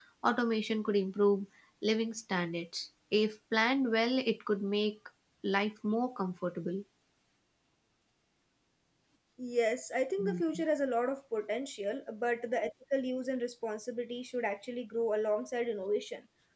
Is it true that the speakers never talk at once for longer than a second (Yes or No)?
Yes